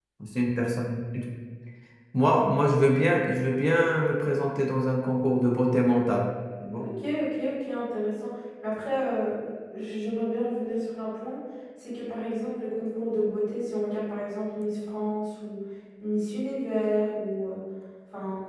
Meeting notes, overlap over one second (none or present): none